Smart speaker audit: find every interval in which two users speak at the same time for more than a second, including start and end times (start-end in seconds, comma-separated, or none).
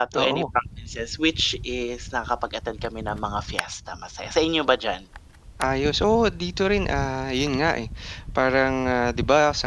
none